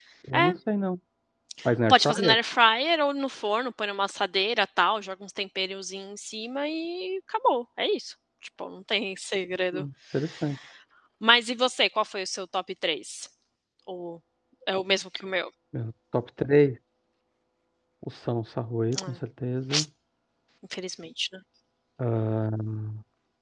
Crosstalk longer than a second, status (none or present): none